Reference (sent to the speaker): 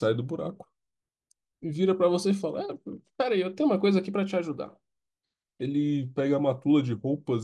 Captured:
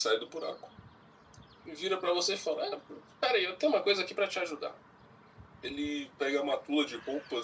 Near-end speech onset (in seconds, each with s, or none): none